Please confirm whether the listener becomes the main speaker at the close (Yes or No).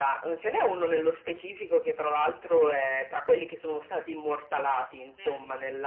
No